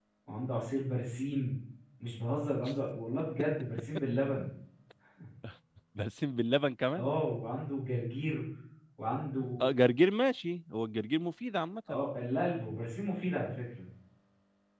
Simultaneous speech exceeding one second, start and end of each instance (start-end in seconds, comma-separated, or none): none